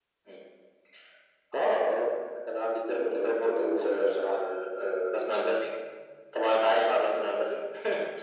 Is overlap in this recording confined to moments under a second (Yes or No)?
No